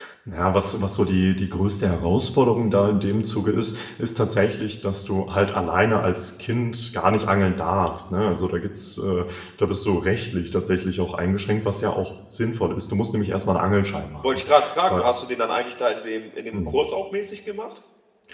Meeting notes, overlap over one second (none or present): none